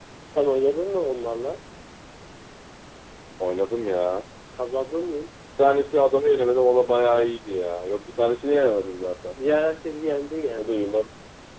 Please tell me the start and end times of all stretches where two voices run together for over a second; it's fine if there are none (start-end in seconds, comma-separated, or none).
none